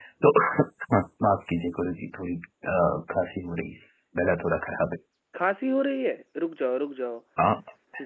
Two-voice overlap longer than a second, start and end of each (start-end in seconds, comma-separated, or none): none